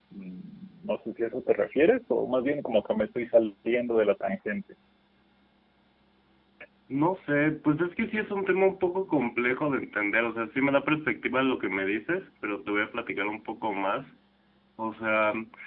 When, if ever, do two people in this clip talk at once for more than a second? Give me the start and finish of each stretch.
none

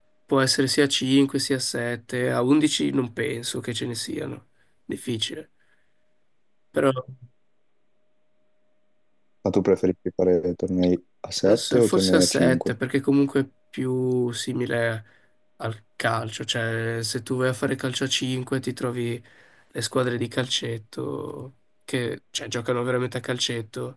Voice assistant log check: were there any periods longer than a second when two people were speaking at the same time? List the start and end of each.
11.4-12.7

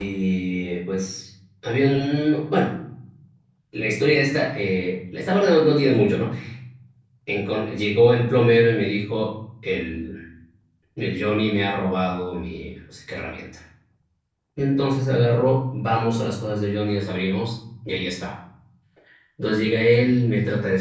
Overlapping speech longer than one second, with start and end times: none

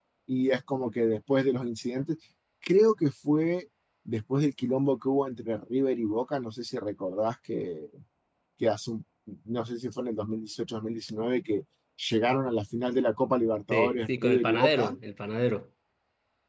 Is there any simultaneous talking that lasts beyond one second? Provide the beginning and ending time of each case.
13.7-14.9

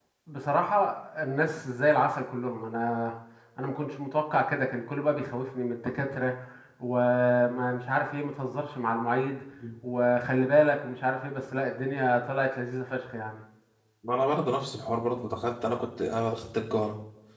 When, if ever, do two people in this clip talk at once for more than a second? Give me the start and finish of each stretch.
none

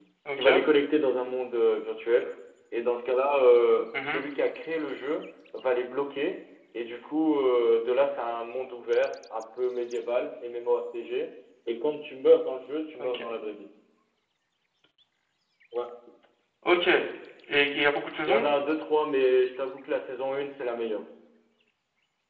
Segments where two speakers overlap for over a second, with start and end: none

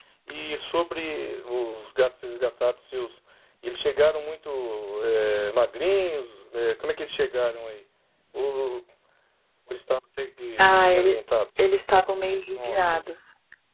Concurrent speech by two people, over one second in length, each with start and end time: none

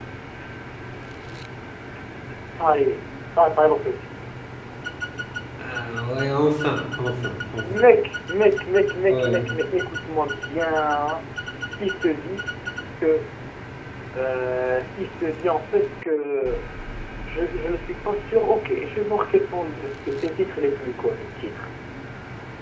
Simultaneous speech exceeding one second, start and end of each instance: none

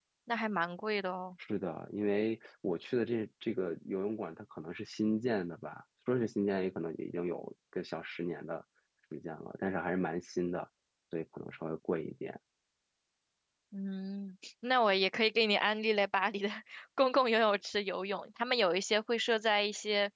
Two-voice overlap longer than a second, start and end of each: none

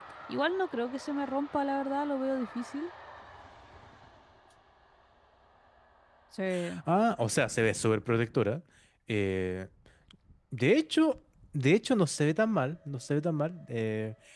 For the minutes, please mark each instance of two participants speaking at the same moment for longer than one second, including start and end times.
none

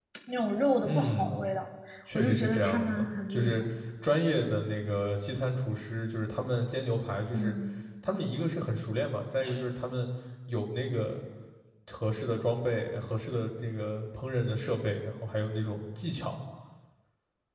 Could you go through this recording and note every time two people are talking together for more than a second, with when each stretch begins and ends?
2.1-3.6

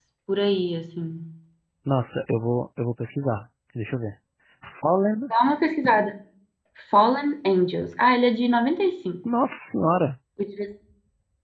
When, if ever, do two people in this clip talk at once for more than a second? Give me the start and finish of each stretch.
none

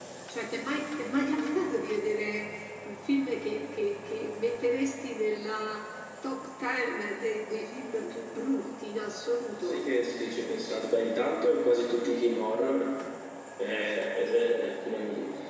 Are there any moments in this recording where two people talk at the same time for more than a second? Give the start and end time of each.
none

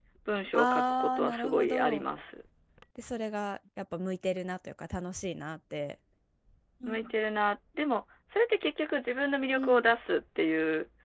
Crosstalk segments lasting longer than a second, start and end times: 0.5-2.0

